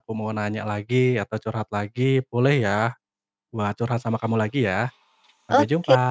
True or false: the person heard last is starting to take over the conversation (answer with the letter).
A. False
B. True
B